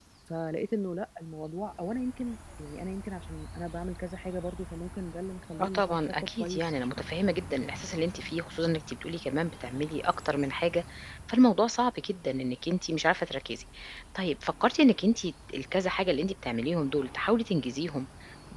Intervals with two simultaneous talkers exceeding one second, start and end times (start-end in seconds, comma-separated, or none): 5.6-7.0